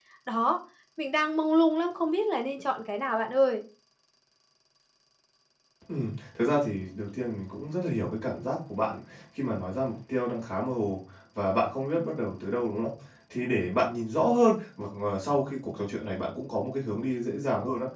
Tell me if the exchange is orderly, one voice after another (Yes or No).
Yes